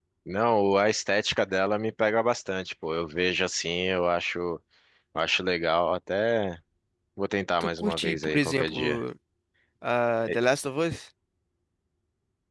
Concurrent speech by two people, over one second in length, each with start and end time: 7.6-9.0

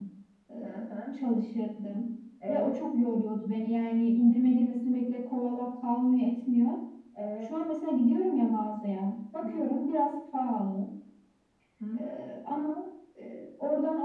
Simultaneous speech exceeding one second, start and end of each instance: none

